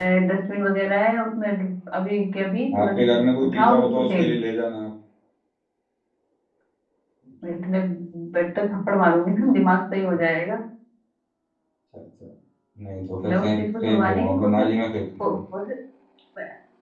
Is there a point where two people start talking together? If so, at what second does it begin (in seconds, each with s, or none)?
2.8 s